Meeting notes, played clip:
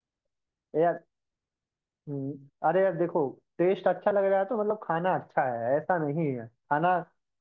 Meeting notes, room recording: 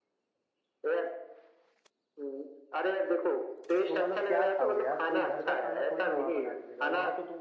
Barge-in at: 3.9 s

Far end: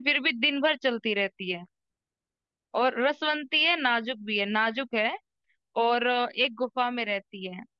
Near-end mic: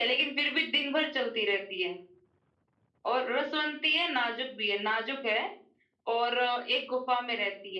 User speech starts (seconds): none

